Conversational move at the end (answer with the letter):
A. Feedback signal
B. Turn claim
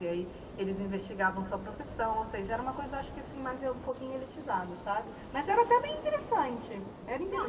B